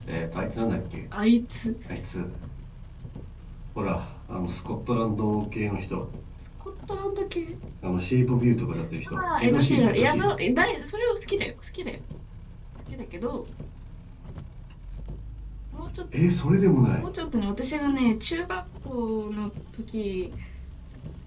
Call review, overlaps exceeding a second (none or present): present